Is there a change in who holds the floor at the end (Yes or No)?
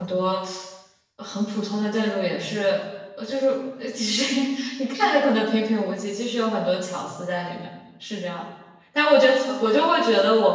No